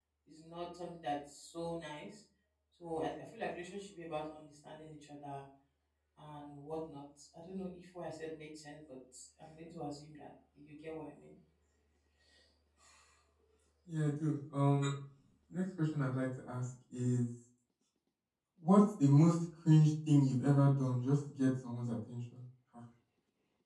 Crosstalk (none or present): none